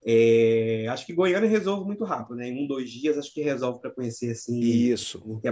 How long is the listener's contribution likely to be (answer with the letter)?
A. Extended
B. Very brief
B